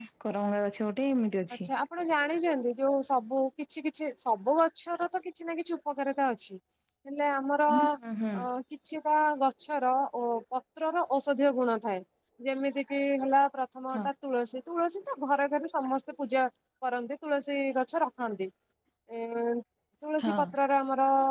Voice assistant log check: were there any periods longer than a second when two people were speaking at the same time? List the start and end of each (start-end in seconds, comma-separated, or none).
none